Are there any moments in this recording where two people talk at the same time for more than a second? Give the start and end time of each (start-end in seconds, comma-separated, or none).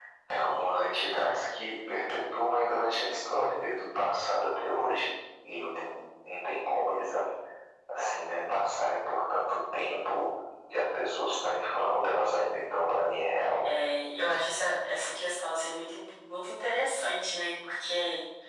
none